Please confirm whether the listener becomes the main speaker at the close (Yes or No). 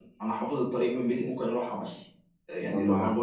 No